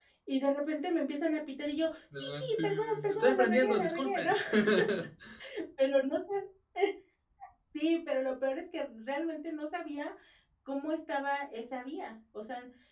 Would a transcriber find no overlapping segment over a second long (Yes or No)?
No